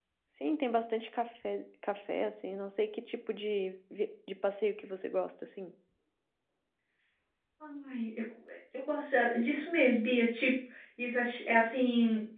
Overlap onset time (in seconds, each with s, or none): none